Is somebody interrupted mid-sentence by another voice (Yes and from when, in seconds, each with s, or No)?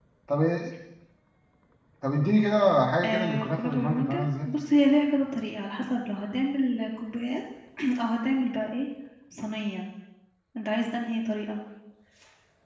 Yes, from 3.0 s